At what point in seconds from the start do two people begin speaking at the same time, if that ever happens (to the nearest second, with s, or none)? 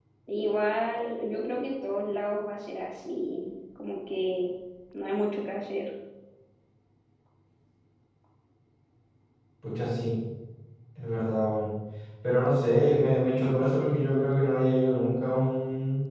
none